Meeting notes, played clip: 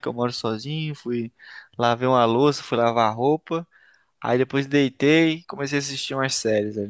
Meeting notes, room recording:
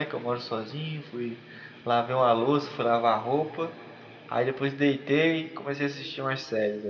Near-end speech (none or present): none